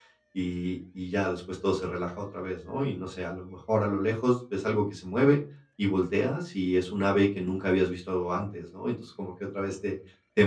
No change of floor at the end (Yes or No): Yes